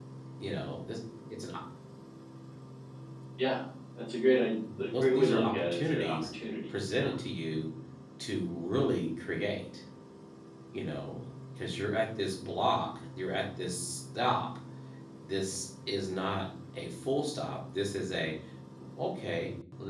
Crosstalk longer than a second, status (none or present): present